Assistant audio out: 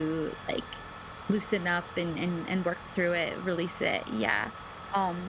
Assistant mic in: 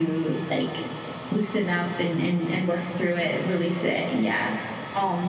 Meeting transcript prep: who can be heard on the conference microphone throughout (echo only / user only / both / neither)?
echo only